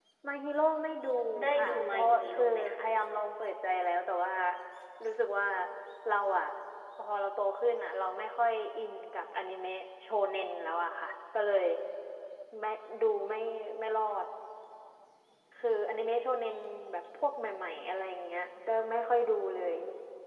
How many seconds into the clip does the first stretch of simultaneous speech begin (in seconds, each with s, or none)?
1.6 s